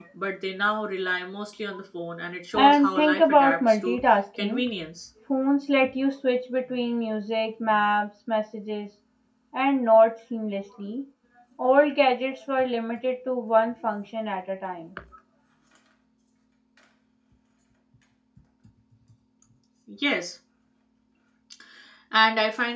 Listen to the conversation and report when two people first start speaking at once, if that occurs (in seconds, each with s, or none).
2.5 s